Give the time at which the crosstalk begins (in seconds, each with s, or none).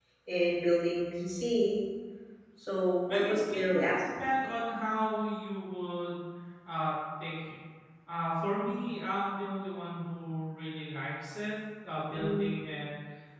3.1 s